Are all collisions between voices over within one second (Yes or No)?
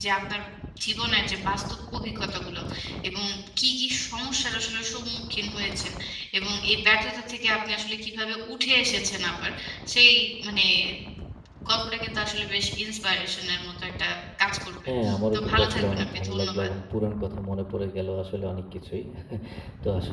No